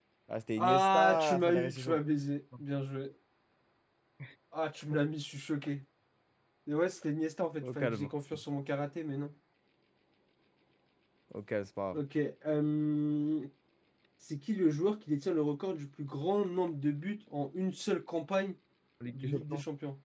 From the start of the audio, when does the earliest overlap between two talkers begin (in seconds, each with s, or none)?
0.6 s